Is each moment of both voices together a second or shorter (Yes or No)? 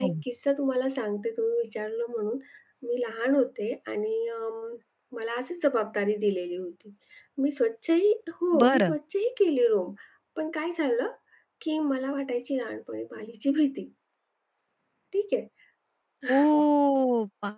Yes